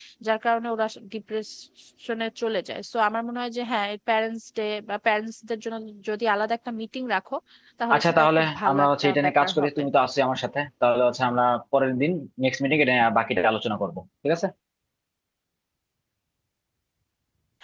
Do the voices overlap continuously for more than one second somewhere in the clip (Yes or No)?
Yes